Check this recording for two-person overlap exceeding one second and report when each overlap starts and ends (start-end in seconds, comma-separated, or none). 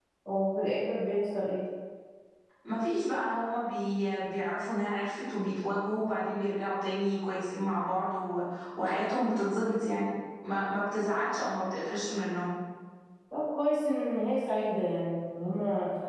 none